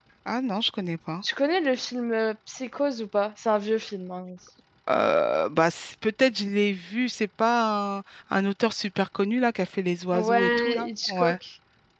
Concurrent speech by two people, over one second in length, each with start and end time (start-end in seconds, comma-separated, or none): 10.1-11.4